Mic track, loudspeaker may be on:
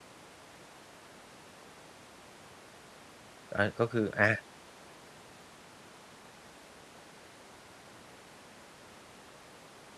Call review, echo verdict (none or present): none